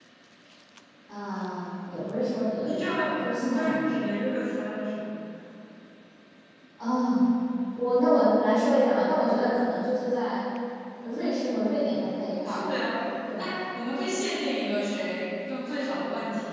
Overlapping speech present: Yes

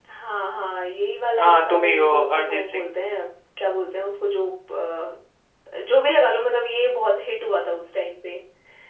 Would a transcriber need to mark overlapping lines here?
Yes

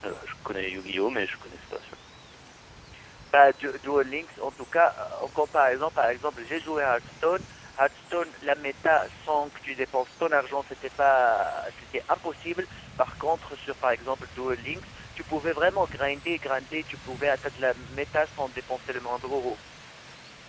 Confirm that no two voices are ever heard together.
Yes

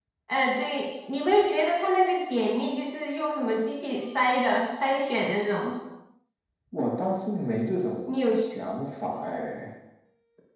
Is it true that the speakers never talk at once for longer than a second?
Yes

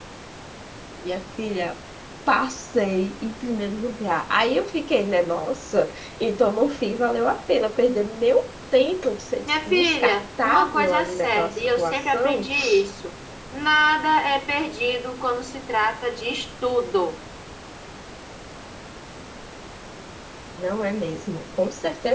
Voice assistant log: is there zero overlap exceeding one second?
No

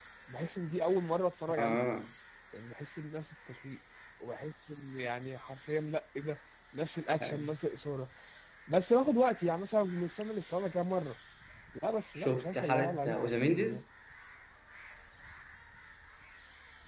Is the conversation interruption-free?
No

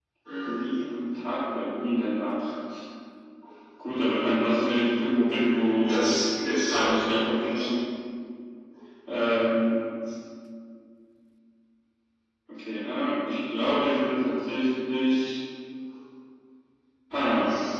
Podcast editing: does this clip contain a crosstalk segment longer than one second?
Yes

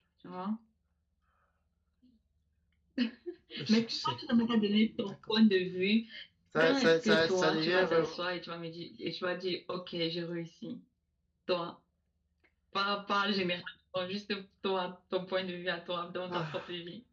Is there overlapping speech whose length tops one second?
Yes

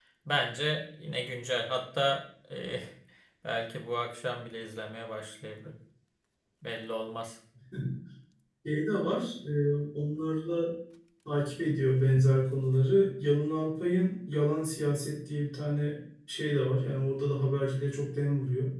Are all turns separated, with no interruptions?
Yes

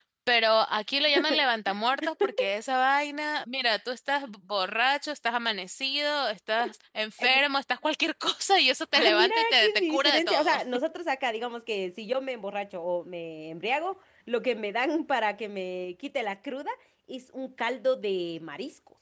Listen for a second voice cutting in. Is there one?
Yes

